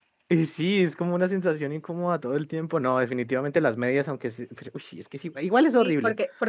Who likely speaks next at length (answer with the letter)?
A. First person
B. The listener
B